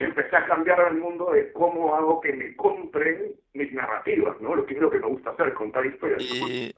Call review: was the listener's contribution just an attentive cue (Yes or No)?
No